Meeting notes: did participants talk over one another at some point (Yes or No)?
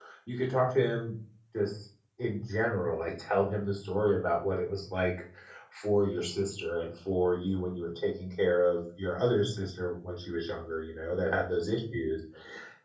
No